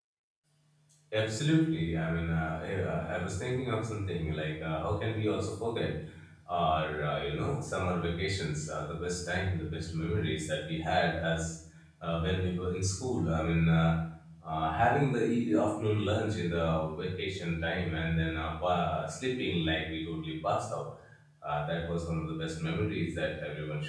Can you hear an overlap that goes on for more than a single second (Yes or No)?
No